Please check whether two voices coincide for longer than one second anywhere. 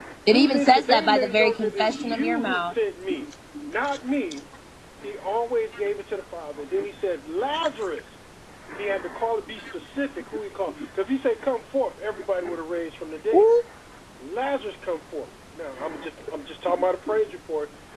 Yes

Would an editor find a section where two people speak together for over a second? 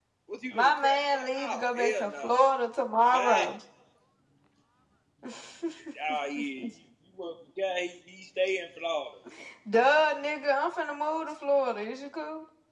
Yes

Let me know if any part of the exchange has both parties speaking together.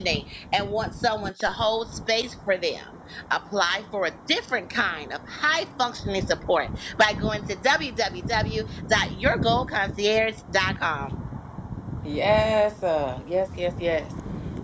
No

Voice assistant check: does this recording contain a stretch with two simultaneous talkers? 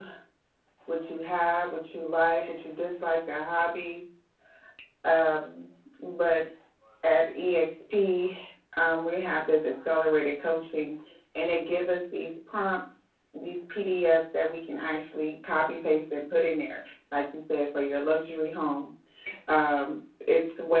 No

